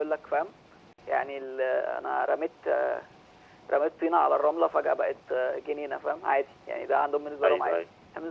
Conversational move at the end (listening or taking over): taking over